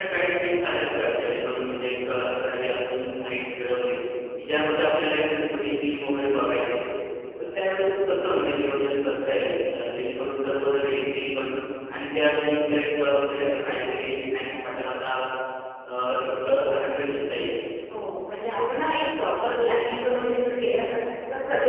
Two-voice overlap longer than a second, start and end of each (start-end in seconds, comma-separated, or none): none